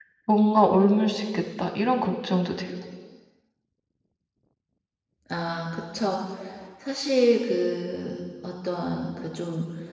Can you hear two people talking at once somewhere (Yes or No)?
No